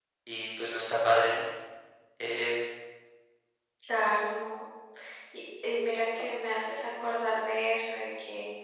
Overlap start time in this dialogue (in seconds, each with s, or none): none